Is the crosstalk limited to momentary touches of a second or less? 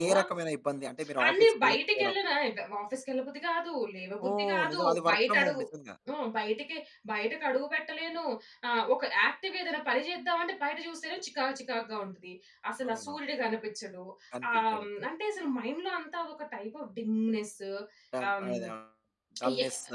No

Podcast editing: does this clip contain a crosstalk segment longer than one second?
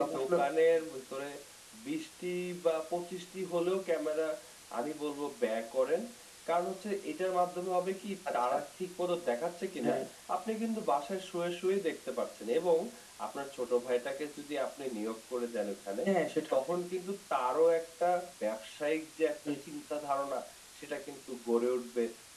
No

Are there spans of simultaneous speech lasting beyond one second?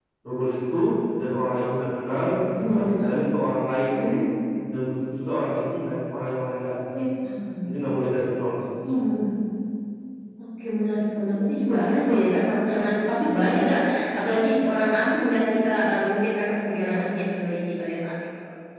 No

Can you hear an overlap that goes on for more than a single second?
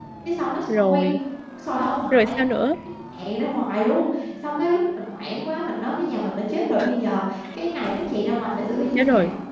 No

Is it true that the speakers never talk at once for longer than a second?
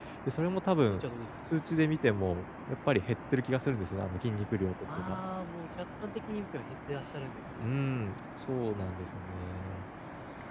Yes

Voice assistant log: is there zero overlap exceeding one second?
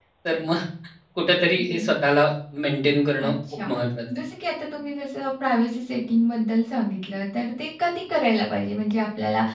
Yes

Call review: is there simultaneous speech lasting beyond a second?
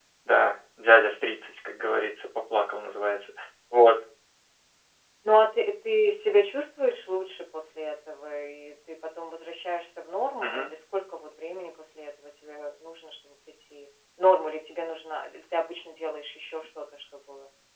No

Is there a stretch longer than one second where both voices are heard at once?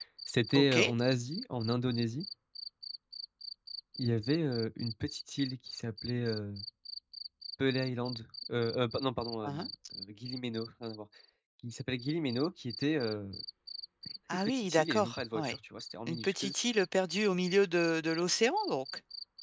Yes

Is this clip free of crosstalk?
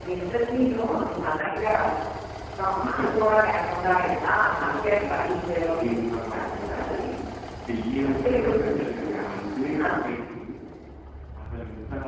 No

